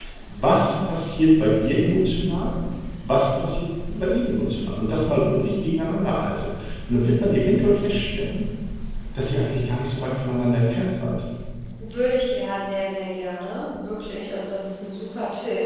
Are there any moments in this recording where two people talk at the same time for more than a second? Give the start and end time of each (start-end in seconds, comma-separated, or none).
none